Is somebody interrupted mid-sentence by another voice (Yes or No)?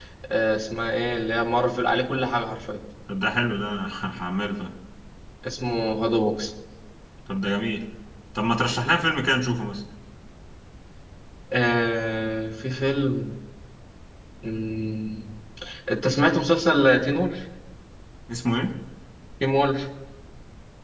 No